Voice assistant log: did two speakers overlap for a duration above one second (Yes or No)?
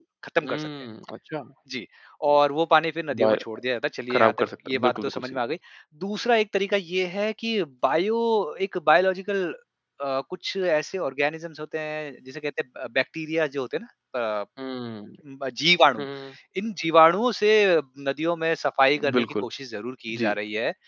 Yes